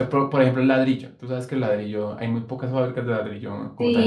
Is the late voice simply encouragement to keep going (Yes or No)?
No